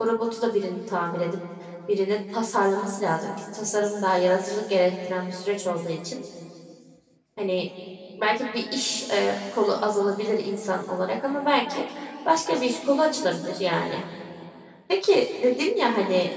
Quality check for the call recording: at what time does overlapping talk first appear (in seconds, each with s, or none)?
none